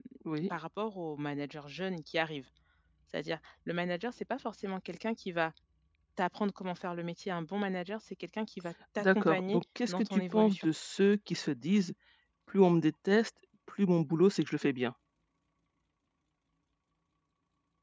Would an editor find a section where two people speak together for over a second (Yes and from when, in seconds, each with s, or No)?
Yes, from 9.0 s